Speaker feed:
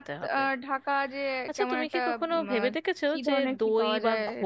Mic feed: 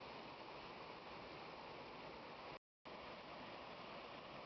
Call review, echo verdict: none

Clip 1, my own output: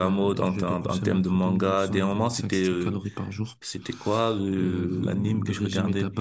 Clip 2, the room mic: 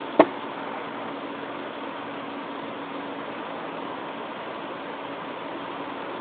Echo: none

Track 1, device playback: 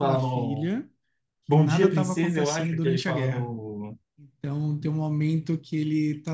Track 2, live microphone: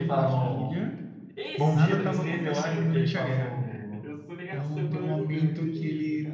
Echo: present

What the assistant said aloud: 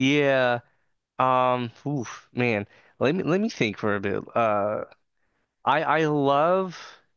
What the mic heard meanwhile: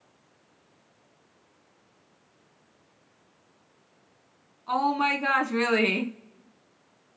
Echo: none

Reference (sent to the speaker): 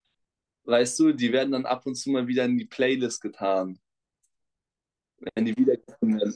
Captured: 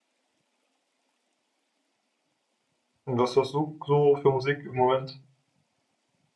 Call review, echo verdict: none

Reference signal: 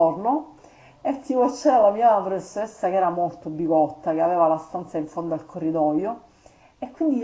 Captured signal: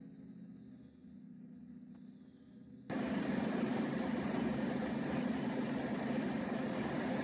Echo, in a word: none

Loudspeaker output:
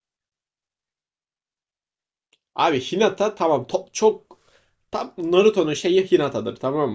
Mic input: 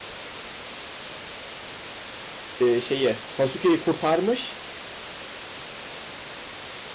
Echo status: none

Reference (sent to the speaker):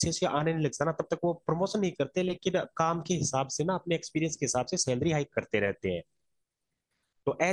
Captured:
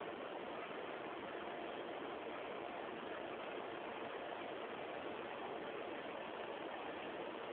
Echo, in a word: none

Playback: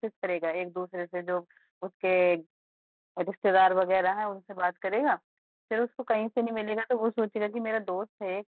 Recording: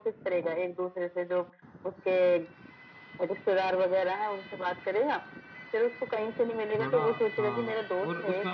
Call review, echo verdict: present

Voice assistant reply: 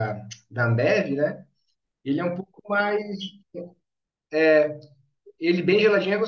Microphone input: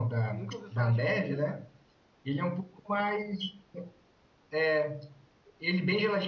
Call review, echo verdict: present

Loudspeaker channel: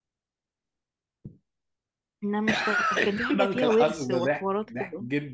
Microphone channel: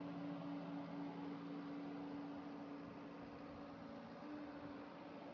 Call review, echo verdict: none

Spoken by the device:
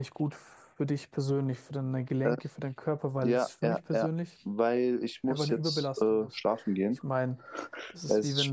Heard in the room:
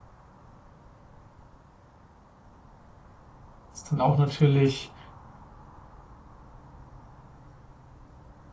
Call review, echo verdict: none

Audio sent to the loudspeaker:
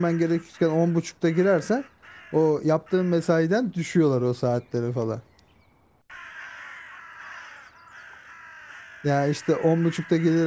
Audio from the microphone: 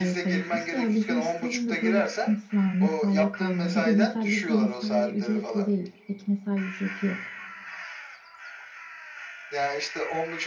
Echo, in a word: present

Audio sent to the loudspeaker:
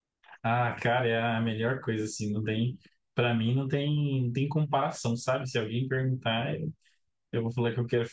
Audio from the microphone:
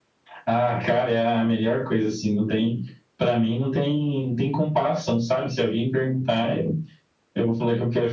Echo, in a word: present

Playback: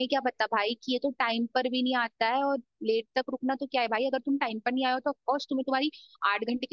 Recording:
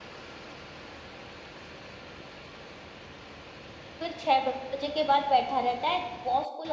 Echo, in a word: none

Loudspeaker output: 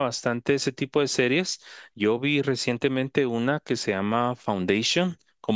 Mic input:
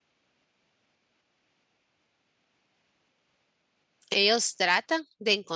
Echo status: none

